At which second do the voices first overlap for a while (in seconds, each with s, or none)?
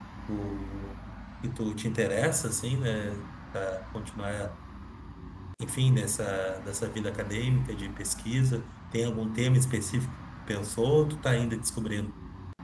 none